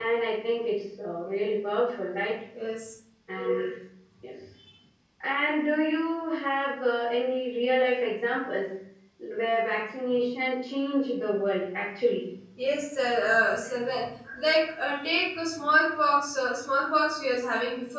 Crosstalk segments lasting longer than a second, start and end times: none

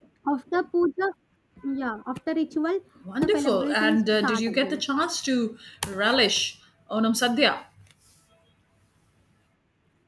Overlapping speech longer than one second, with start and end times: 3.2-4.8

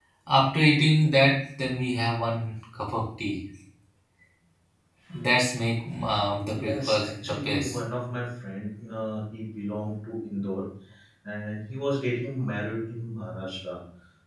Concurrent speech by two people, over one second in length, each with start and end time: 6.6-7.8

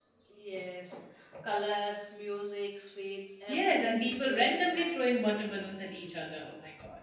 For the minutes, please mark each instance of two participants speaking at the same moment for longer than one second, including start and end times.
3.5-4.9

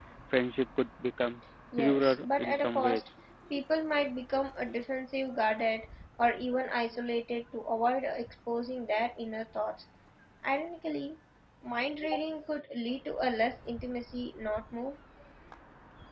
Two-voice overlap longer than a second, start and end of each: 1.8-3.0

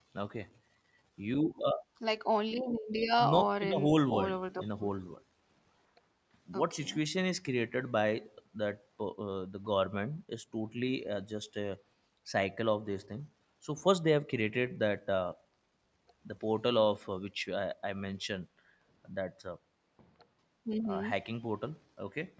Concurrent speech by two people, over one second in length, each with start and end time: 3.3-4.9

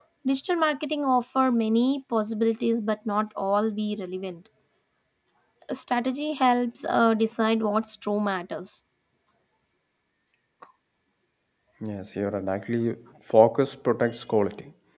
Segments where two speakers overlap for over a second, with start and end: none

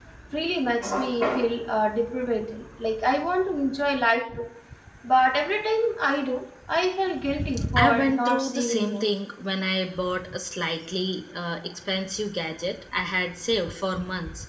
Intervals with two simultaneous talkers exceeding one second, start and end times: 7.8-9.1

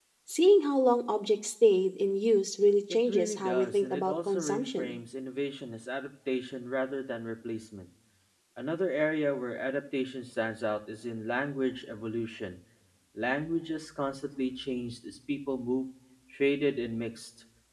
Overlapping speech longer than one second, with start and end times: 3.1-5.0

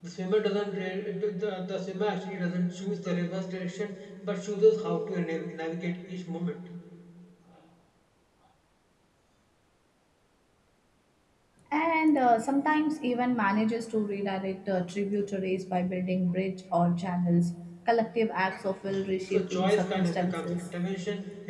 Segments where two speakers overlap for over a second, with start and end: 19.3-20.7

